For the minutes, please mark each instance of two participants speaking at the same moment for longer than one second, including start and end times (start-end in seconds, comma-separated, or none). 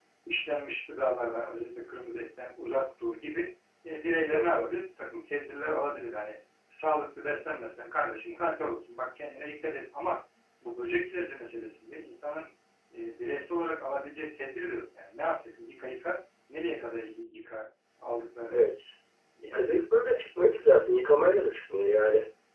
none